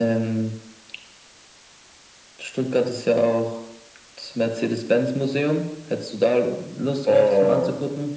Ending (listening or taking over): taking over